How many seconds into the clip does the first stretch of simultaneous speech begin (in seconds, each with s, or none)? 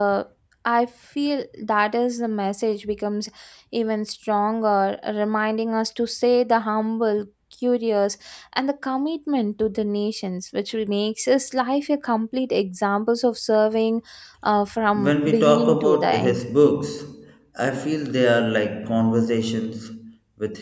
14.9 s